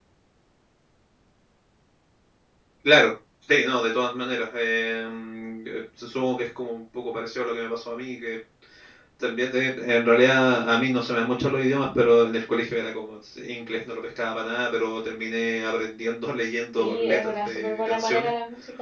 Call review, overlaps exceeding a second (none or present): present